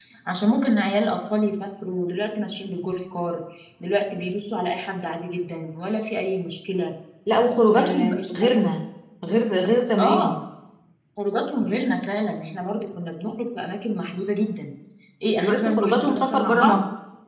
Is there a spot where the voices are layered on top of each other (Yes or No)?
Yes